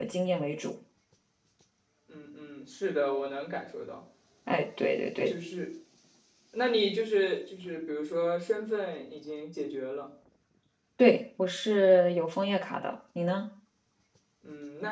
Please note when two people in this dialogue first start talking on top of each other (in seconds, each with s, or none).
none